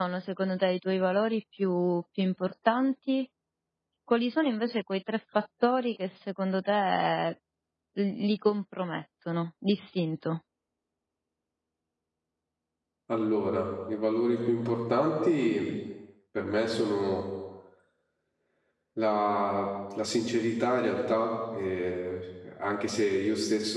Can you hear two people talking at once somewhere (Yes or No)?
No